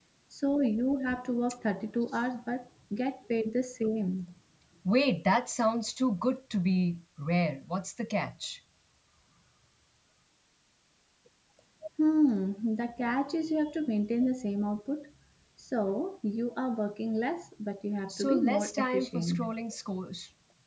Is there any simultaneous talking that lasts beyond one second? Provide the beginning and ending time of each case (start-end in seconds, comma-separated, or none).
18.1-19.4